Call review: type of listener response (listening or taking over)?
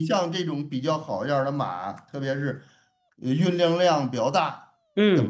listening